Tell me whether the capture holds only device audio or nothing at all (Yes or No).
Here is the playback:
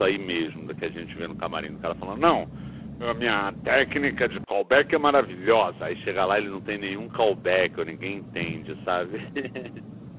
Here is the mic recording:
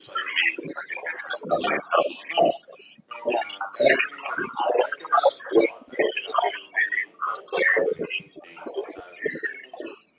Yes